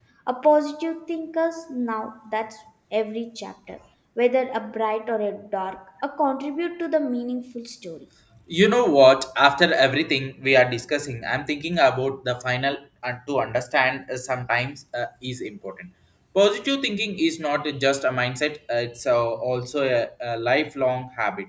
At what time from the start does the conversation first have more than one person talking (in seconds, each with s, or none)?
none